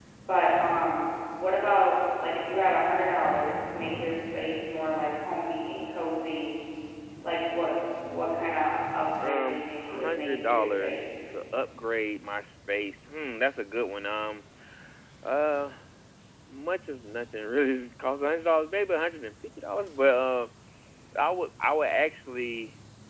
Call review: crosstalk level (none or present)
present